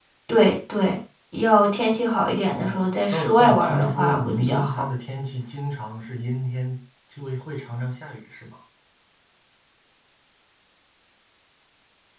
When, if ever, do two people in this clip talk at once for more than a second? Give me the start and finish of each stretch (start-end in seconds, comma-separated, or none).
2.5-4.8